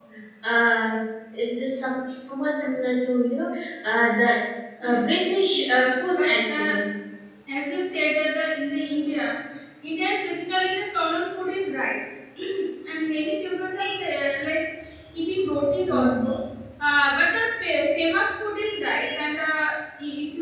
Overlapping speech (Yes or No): Yes